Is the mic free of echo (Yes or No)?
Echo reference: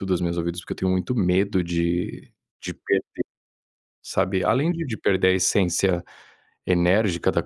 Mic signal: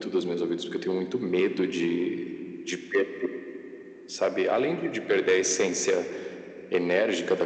No